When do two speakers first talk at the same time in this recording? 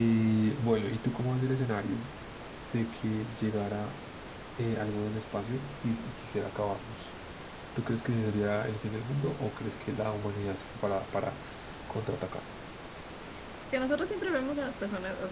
none

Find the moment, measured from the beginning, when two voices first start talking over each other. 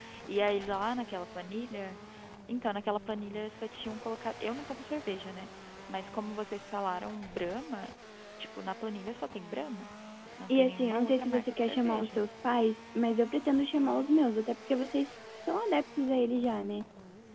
10.5 s

